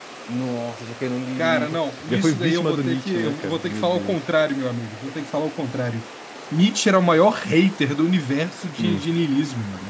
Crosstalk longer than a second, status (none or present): present